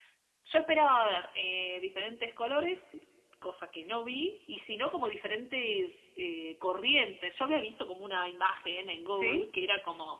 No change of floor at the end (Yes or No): Yes